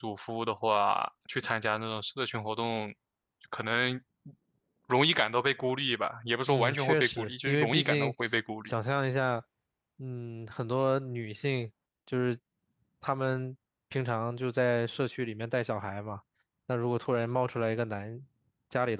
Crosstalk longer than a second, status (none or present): present